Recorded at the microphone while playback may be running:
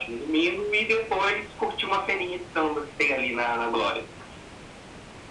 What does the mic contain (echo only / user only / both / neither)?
echo only